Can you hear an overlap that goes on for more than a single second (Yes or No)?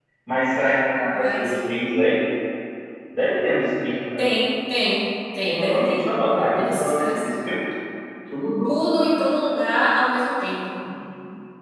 Yes